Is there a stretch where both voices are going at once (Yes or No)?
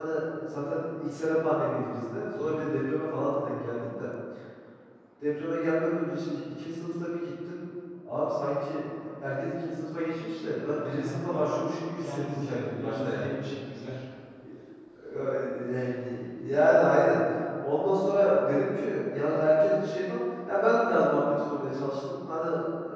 Yes